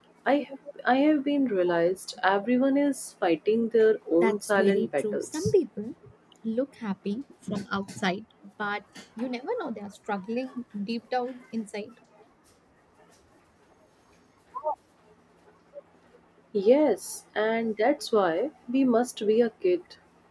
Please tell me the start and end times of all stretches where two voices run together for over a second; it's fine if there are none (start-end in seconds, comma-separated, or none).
4.2-5.5